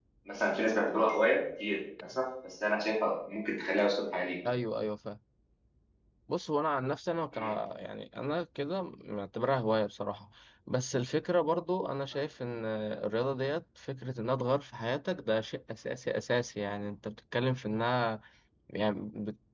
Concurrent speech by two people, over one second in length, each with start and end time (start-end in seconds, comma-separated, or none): none